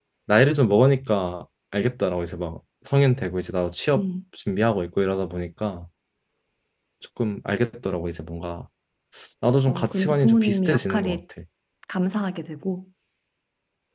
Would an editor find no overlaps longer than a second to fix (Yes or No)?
No